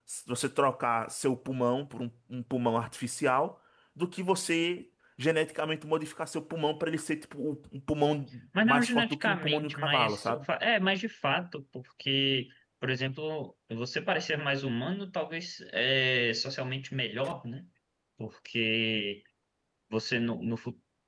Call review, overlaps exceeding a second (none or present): present